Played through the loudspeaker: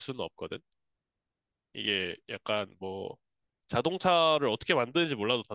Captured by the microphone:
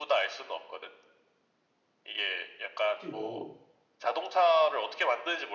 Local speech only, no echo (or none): 그리고